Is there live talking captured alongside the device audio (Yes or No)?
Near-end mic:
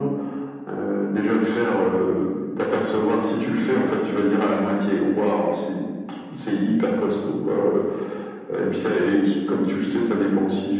No